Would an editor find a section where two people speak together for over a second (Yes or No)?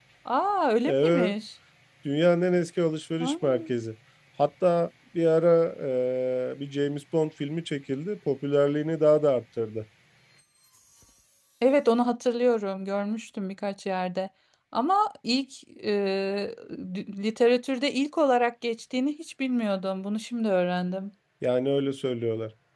No